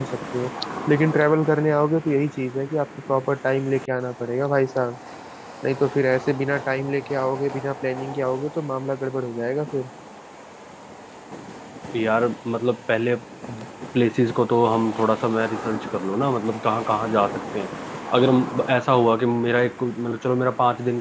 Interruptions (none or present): none